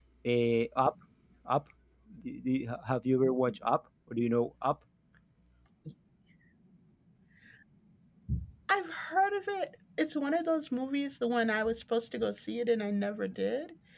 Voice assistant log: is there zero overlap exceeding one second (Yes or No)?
Yes